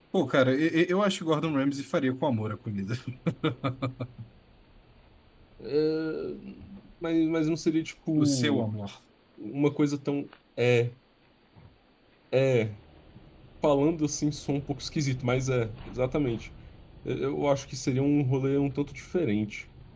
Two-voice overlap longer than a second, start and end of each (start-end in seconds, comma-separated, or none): none